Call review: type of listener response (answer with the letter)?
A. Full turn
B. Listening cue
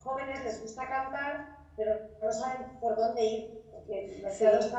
B